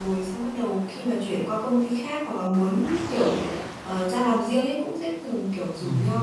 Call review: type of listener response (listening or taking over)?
listening